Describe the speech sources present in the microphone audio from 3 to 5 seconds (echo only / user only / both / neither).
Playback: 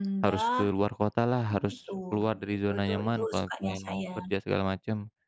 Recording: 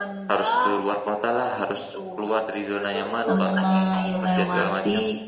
both